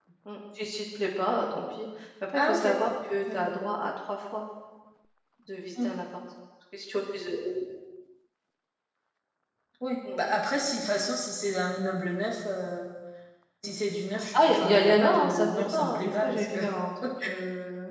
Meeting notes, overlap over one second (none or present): present